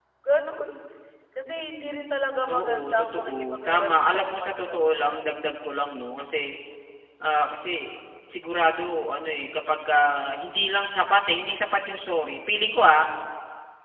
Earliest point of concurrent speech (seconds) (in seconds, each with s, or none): 2.5 s